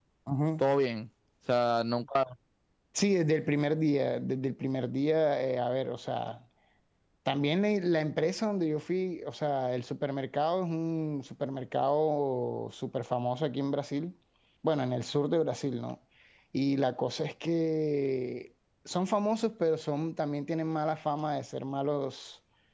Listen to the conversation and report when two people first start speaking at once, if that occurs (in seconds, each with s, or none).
none